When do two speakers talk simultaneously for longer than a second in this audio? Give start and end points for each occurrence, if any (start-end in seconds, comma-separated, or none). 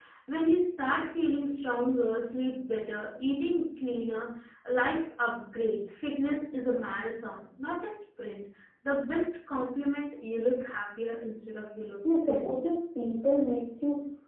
none